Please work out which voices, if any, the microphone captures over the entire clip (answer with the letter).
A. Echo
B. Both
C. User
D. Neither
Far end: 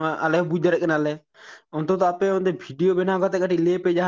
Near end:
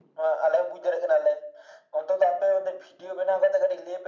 A